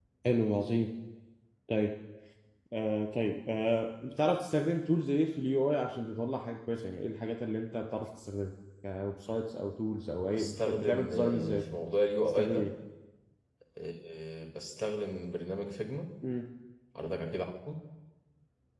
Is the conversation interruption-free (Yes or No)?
No